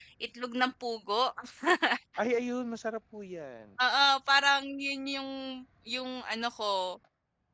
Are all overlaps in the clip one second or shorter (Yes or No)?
Yes